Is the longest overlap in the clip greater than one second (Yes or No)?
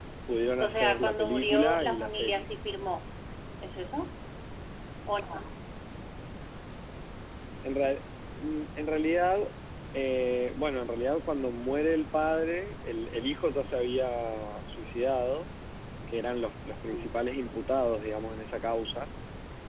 Yes